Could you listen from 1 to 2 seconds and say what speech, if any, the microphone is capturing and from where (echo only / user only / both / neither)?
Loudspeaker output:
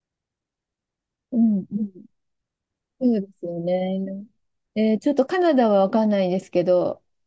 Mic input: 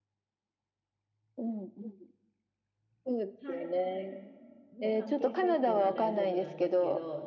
echo only